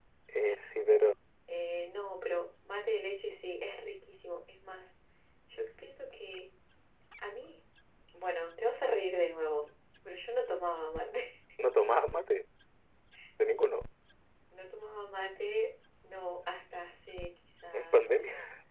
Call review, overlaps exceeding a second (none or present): none